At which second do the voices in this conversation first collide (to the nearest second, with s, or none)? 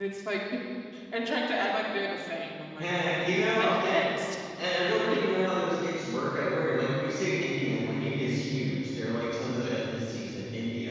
3 s